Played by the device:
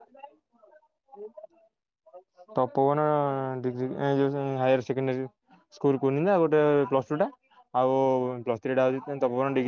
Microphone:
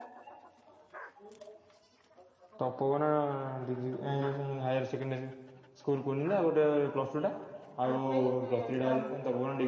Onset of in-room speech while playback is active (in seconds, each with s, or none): 7.8 s